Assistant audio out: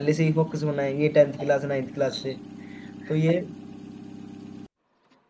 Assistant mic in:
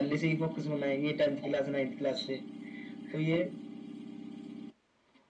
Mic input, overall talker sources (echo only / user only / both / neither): echo only